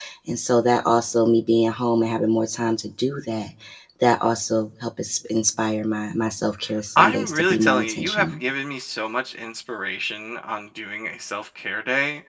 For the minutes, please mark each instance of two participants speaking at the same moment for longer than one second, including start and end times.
7.0-8.4

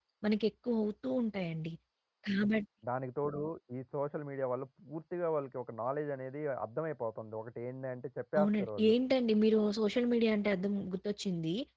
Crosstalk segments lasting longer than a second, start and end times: none

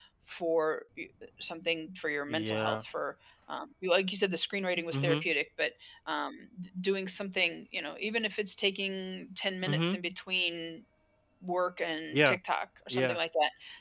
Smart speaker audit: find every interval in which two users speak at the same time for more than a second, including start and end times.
none

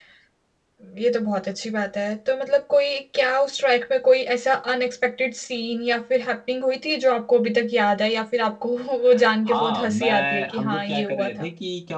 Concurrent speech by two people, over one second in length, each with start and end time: 9.5-11.5

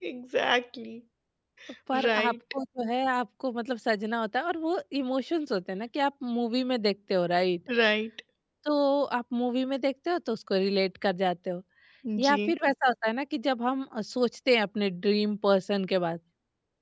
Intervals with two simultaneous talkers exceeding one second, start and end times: none

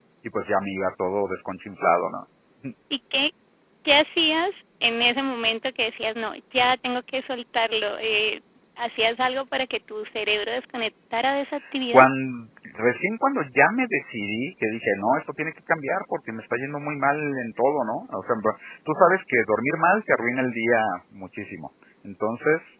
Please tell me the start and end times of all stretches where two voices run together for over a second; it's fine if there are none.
none

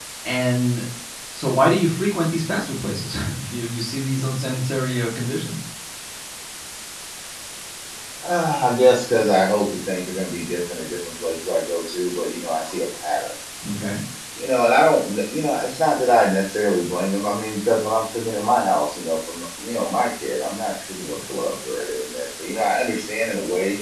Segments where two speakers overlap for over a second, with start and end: none

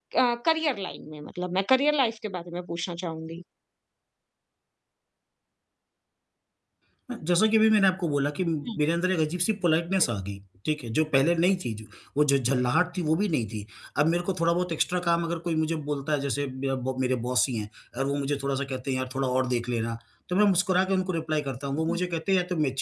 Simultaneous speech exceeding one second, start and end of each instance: none

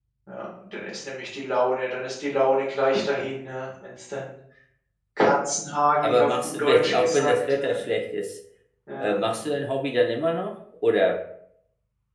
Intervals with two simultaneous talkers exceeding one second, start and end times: 6.0-7.8

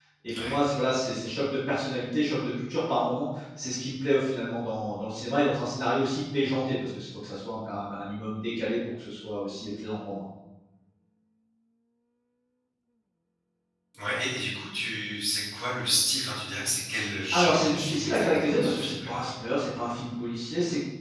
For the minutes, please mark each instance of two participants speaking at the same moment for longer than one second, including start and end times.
17.3-19.2

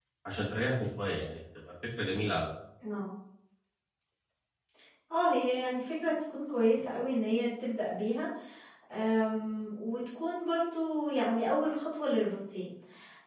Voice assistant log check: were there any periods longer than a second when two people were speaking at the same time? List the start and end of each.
none

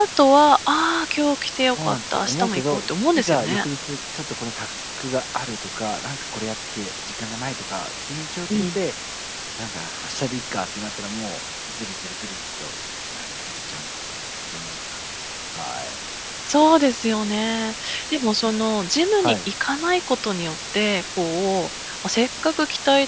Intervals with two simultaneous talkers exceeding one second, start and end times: 1.7-3.6

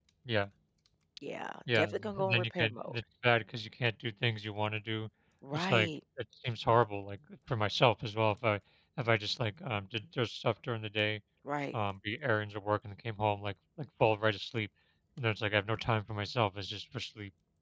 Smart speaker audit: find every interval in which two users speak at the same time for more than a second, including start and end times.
1.8-3.0

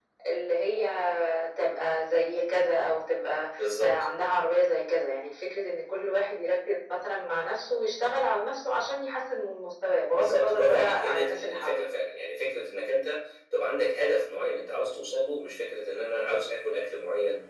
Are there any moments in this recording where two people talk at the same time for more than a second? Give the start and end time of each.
10.1-11.8

